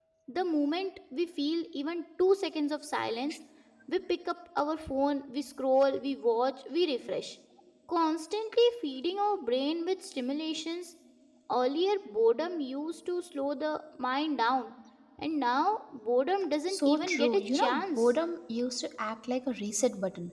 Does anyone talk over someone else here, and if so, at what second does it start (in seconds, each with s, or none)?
16.7 s